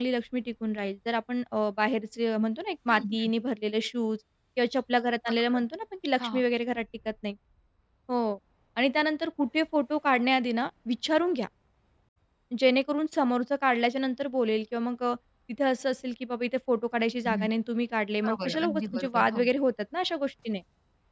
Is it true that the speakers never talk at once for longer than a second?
No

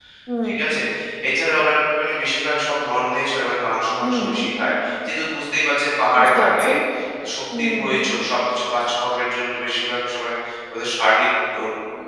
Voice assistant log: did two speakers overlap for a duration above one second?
No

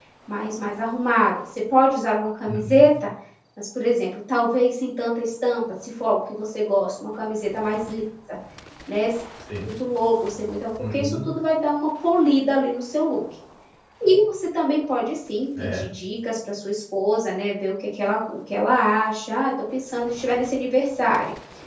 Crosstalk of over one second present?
No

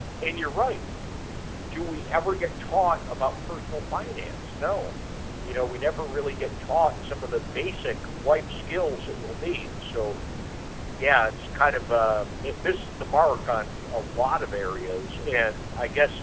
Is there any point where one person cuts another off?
No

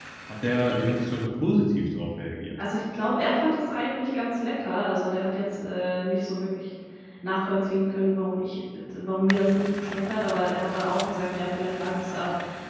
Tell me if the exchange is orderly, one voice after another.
Yes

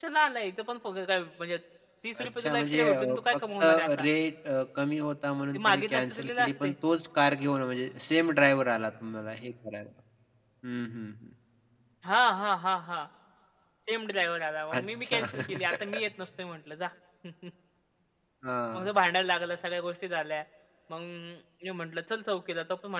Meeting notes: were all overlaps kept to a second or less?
No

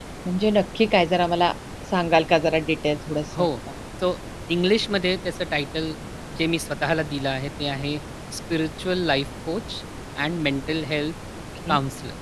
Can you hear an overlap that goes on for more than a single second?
No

